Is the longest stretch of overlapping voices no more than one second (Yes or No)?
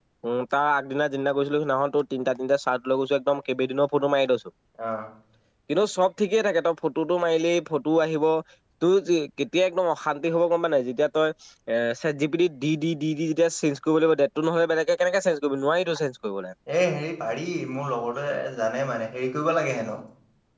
Yes